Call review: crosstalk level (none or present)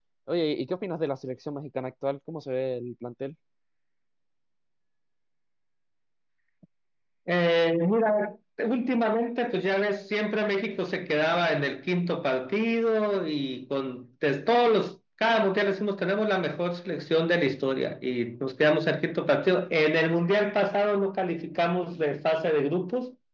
none